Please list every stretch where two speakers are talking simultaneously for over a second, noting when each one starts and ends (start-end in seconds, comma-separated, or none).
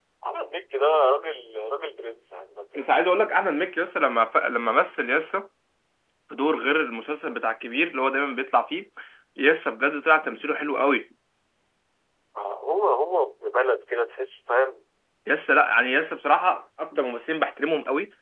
none